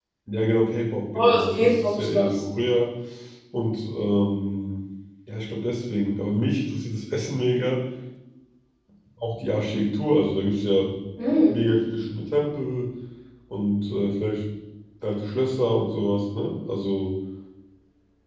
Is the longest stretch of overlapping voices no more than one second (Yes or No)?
No